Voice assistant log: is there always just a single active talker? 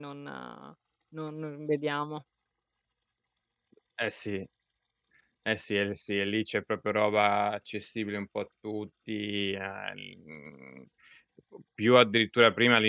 Yes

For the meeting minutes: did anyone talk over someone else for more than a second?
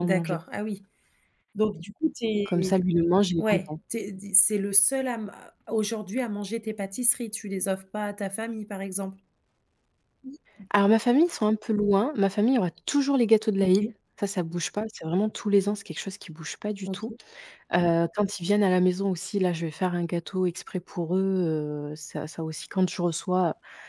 No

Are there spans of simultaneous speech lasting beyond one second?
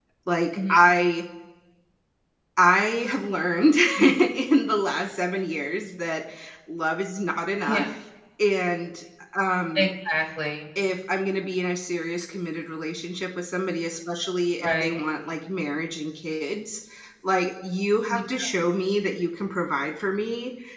No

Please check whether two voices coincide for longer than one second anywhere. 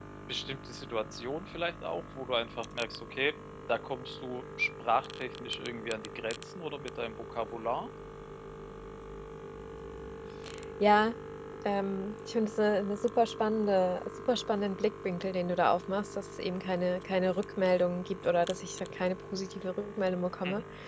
No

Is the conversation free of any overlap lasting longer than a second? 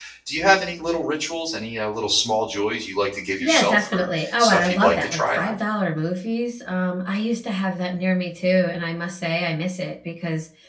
No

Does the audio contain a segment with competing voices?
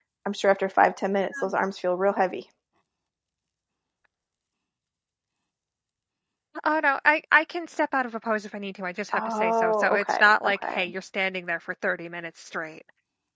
Yes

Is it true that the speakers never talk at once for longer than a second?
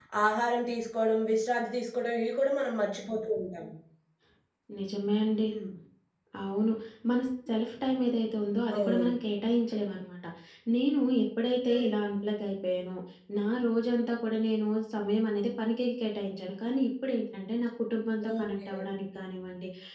Yes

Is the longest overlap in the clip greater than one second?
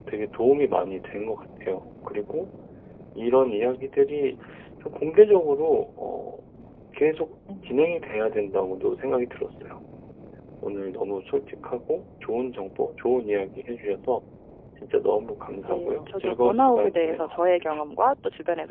Yes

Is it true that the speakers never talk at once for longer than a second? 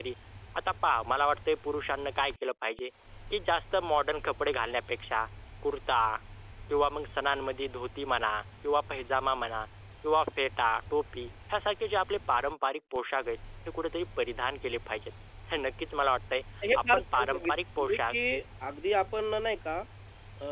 No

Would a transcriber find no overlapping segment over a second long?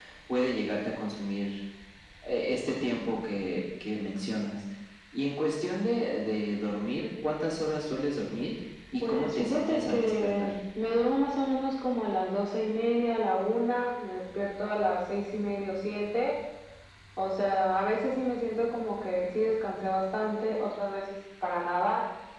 No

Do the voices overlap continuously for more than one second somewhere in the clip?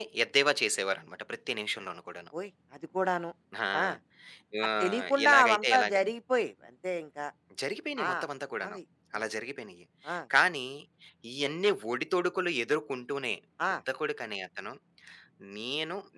Yes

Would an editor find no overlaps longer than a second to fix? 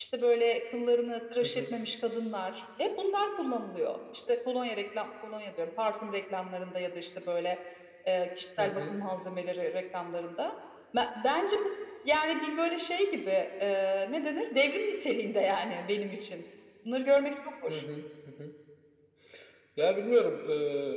Yes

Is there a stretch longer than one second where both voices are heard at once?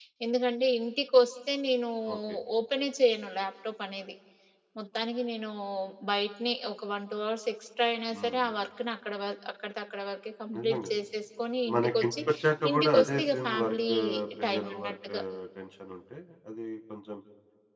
Yes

